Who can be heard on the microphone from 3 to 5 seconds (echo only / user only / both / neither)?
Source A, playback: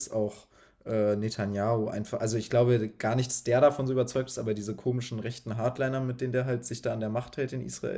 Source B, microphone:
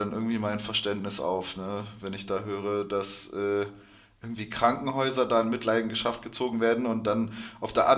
user only